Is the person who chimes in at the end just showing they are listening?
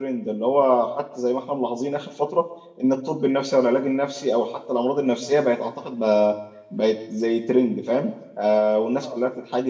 Yes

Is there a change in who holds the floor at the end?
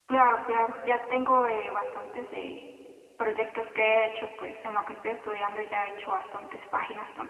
No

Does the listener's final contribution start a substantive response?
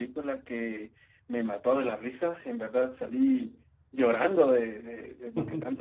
No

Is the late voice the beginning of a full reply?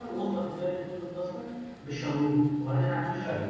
No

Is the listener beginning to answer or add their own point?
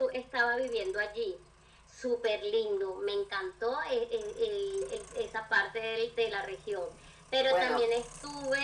No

